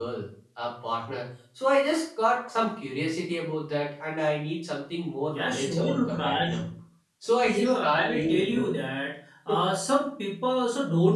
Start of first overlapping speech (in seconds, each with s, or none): 5.3 s